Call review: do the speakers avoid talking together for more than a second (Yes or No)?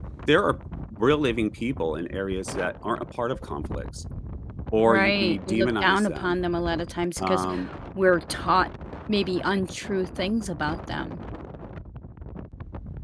No